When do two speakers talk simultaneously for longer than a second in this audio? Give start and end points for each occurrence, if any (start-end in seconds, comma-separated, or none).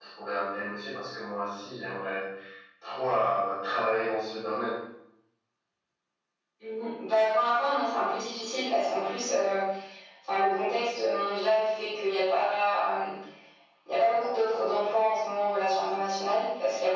none